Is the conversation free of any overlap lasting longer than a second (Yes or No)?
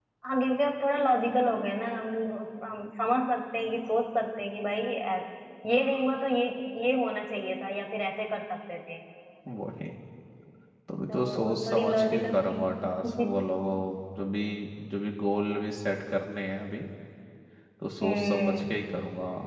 No